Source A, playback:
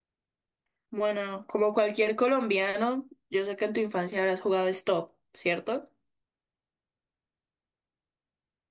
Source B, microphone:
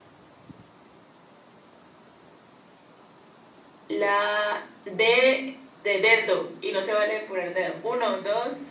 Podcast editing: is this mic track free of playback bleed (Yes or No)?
Yes